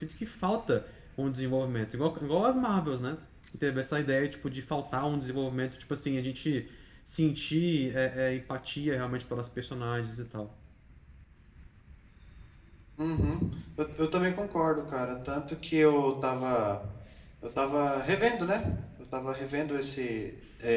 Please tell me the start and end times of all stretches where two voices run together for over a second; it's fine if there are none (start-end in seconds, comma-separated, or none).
none